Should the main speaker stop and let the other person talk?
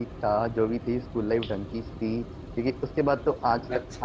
No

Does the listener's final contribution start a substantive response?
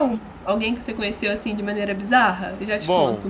Yes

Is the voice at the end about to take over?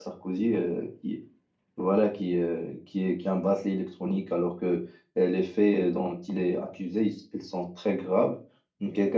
No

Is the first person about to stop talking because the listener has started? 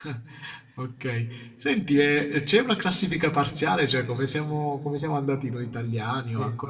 Yes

